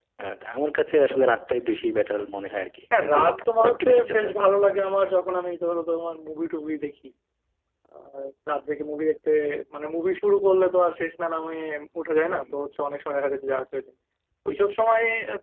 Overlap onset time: 3 s

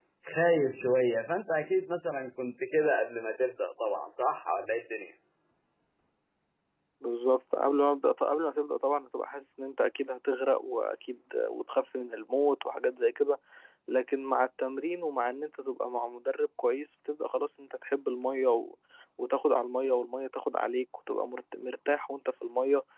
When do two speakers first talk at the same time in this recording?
none

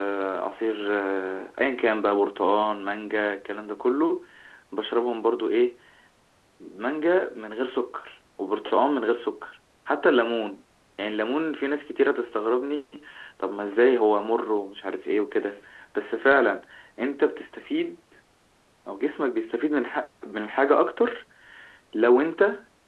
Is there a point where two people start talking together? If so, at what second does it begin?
none

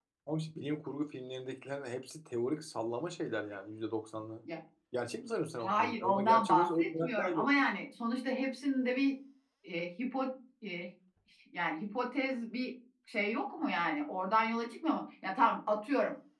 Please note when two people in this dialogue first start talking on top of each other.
6 s

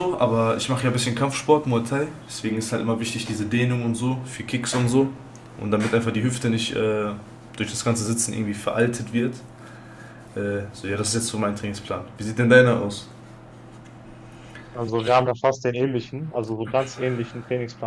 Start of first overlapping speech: none

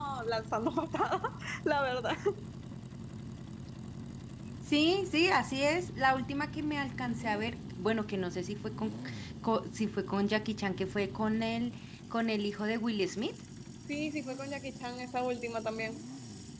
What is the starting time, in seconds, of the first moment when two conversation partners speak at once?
none

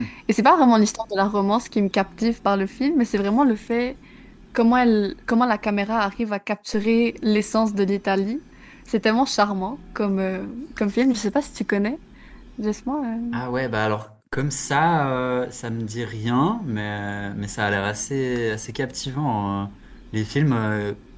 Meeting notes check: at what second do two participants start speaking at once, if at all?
none

